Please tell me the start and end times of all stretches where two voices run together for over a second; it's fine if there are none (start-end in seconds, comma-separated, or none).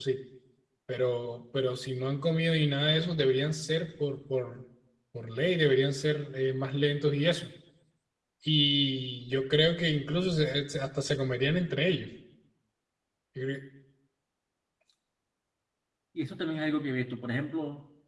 none